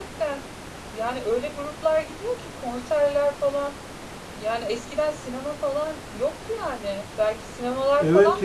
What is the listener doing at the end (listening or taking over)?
taking over